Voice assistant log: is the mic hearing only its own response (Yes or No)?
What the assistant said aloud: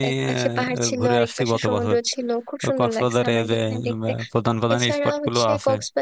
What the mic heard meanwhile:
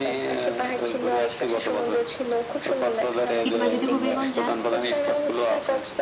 No